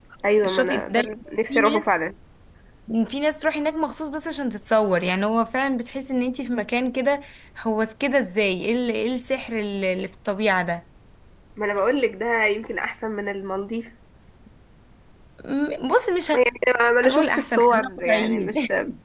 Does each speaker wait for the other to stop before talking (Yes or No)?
No